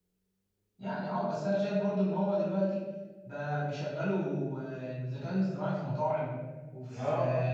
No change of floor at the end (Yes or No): Yes